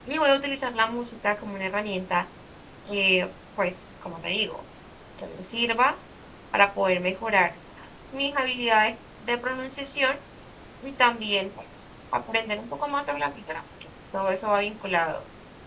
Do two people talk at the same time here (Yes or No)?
No